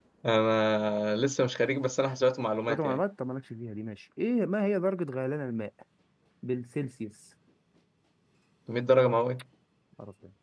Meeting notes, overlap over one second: none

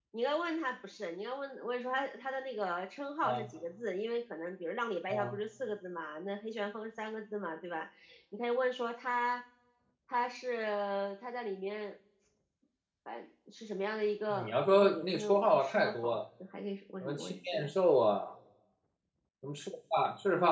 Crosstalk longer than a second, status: present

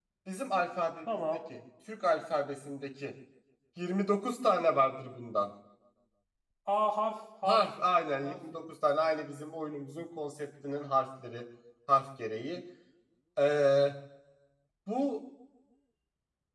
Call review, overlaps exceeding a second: none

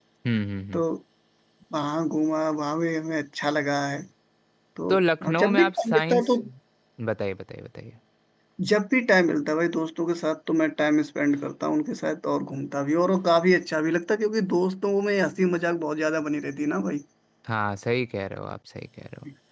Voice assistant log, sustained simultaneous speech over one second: present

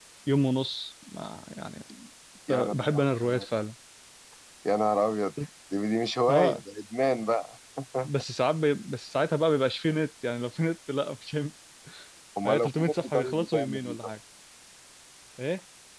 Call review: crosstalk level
present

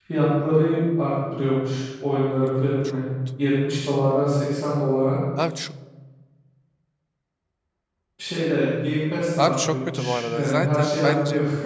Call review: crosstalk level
present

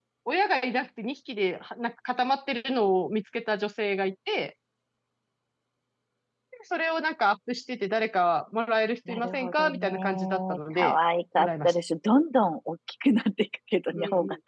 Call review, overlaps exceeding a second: present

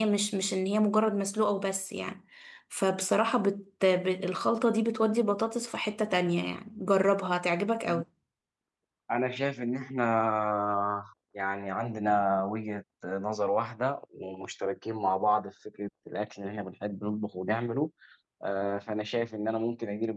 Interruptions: none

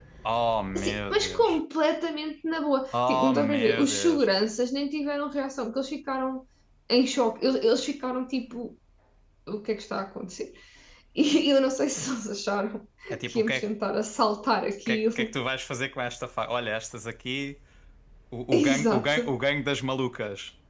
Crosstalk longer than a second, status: present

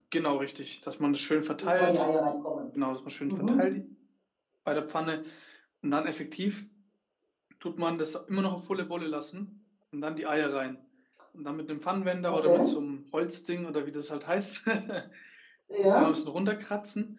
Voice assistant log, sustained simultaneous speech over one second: none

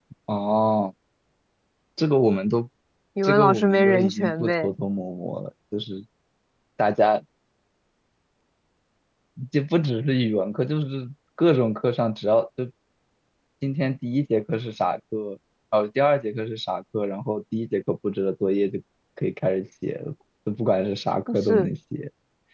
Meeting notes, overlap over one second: present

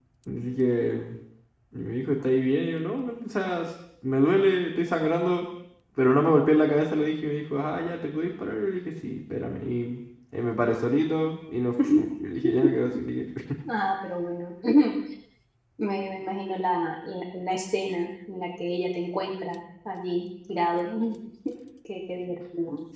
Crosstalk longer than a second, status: none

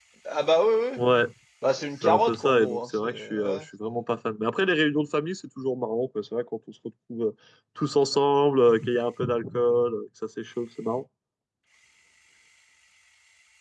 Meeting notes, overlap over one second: present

